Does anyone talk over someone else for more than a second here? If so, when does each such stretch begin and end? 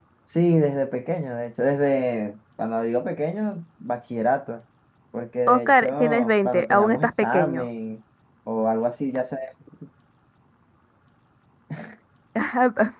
5.5-7.7

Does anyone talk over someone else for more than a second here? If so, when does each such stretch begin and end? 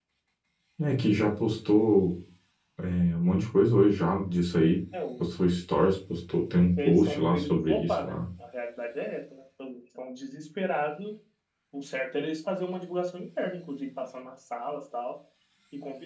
6.8-8.2

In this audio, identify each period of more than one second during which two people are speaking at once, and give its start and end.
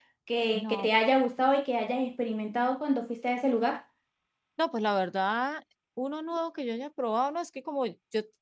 none

